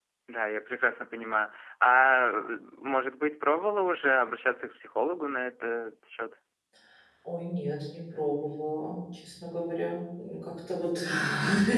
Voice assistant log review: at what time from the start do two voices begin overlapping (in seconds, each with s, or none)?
none